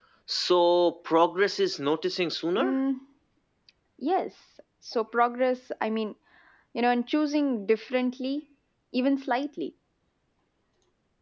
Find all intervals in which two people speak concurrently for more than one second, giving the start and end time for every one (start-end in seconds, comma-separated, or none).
none